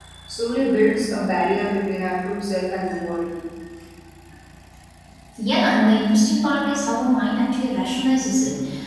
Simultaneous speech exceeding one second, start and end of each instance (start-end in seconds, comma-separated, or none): none